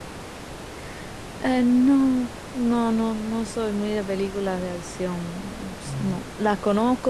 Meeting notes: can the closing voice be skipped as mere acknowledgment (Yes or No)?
Yes